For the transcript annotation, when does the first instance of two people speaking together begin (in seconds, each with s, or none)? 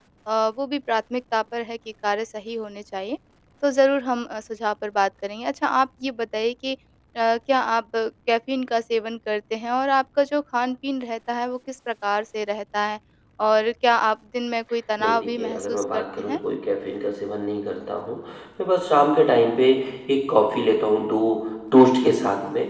15.0 s